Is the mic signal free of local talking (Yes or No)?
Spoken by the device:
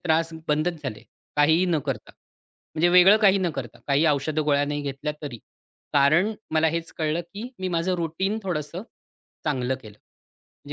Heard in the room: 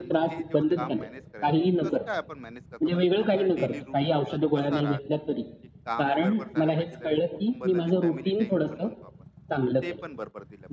No